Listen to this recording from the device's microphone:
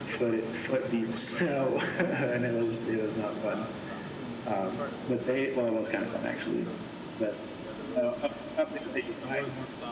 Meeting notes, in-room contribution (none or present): present